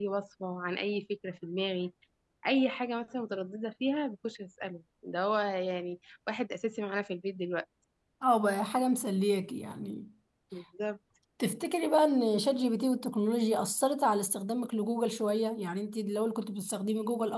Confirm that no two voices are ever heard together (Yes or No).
Yes